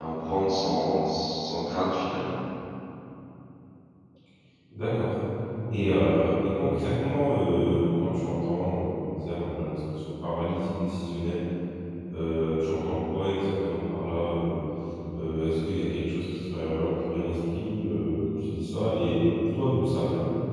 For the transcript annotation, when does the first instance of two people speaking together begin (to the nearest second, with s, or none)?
none